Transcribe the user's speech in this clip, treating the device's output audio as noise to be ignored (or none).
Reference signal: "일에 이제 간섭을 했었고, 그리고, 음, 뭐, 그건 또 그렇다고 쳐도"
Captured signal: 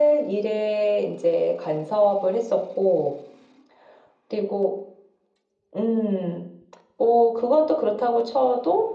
none